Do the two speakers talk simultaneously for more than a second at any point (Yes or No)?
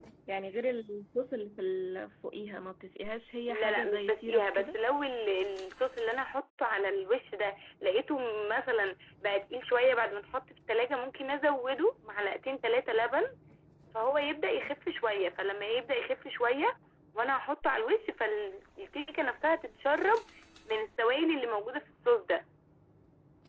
Yes